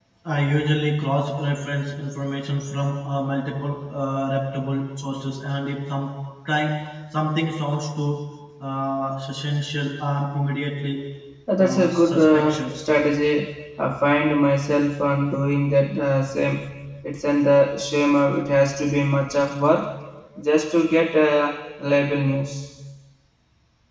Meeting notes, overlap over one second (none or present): present